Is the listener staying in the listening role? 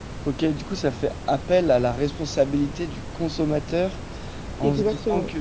Yes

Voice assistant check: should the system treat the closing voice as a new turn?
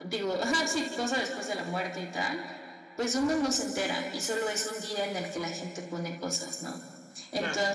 No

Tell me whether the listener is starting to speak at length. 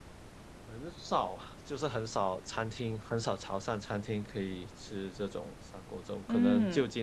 No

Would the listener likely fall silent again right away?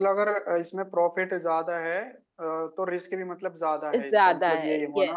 No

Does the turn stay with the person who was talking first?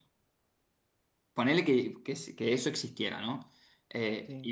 Yes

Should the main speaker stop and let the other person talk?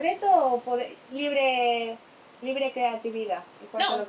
Yes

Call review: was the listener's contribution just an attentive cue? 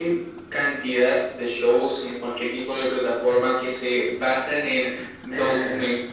Yes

